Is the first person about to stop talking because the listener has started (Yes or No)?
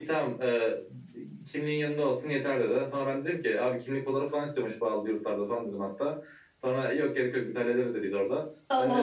No